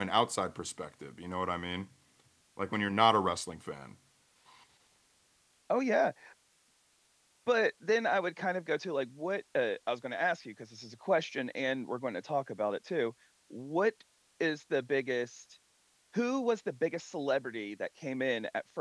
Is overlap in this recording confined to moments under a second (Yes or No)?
Yes